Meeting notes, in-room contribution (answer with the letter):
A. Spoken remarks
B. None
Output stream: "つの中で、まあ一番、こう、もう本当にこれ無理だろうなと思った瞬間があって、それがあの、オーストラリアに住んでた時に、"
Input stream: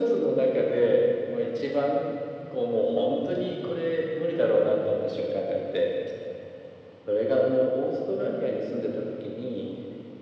B